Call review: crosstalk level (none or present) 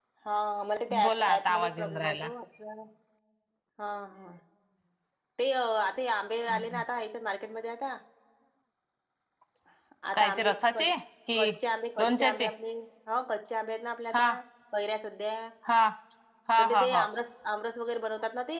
present